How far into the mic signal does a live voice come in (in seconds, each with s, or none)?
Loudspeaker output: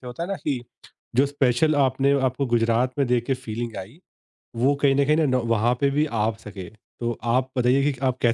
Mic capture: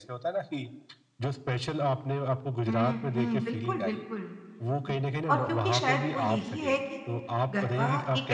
2.7 s